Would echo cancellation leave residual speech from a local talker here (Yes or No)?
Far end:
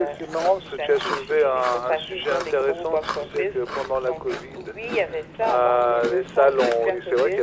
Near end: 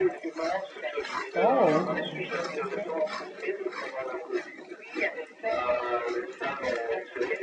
Yes